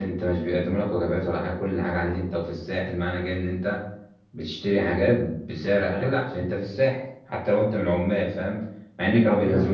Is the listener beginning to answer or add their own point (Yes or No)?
No